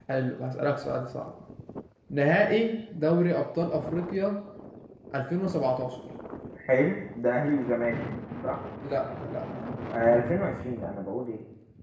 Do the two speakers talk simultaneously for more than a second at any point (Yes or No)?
No